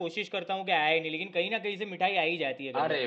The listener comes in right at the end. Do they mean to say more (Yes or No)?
Yes